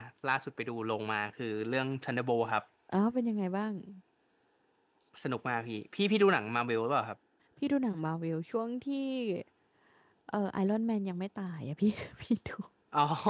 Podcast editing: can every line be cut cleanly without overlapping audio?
Yes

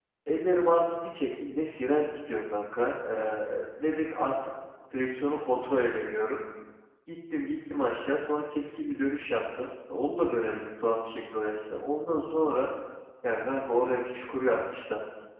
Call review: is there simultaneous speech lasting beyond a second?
No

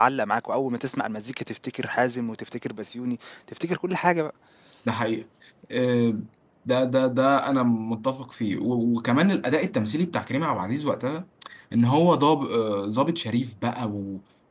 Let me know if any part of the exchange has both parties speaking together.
No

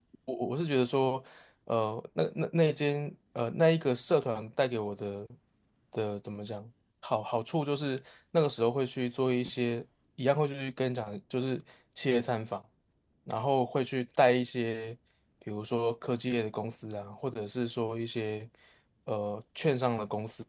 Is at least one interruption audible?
No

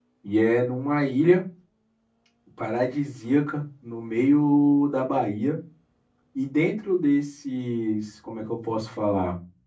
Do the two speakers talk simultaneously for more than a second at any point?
No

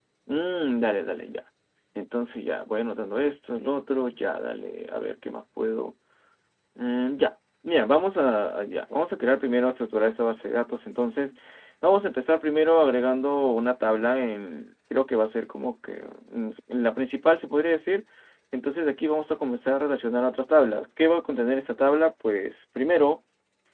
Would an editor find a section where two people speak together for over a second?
No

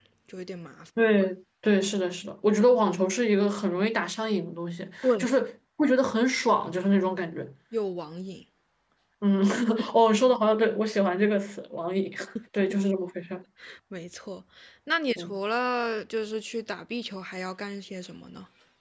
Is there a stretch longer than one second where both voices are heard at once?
No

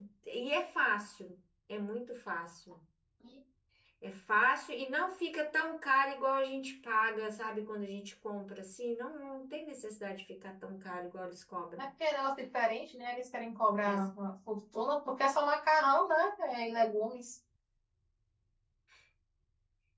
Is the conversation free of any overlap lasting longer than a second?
Yes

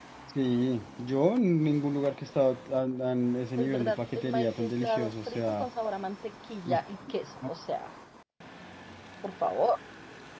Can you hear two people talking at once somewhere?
Yes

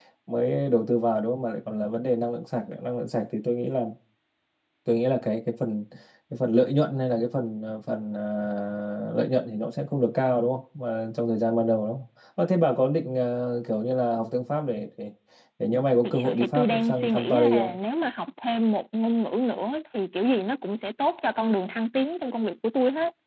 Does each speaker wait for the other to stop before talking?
No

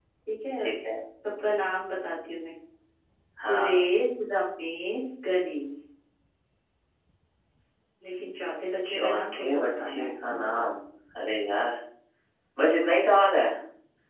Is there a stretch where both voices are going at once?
Yes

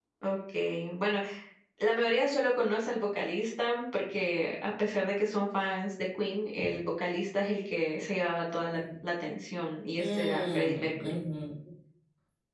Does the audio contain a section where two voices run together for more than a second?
Yes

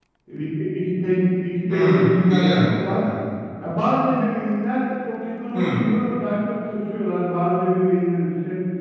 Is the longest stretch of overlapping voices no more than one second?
No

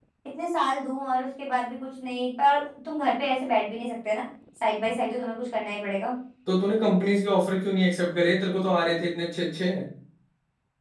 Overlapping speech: No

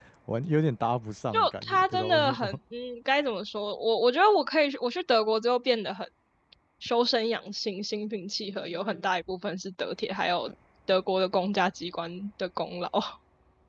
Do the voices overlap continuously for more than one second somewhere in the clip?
Yes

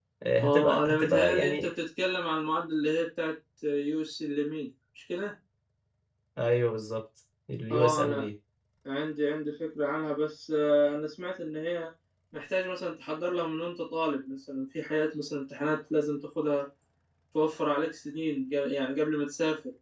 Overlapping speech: Yes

